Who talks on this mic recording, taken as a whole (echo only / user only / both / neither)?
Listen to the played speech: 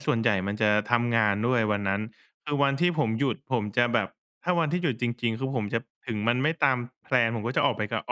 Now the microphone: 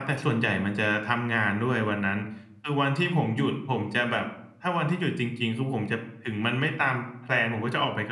echo only